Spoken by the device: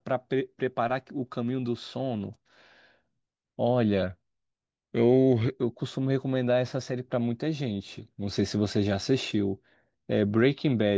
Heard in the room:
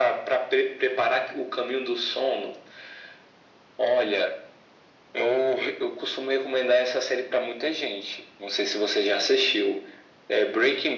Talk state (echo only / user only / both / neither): echo only